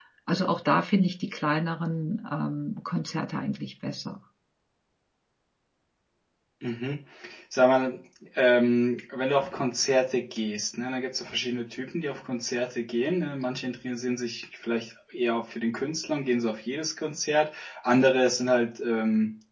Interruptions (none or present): none